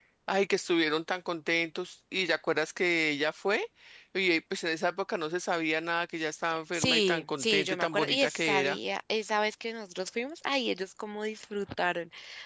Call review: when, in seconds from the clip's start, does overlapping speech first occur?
6.7 s

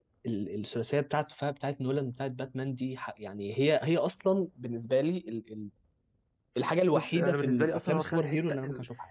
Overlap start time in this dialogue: 6.9 s

